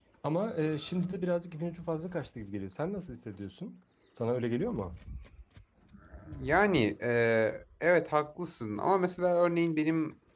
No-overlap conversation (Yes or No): Yes